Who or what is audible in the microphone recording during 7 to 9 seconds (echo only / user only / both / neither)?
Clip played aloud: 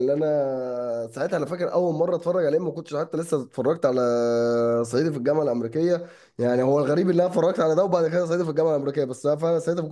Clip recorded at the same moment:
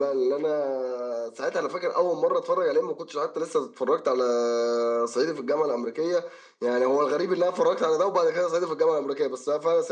echo only